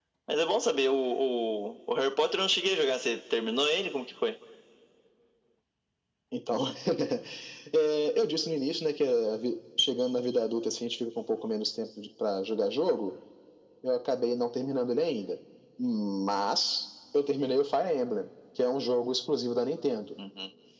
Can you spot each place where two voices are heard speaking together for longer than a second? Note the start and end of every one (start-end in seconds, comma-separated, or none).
none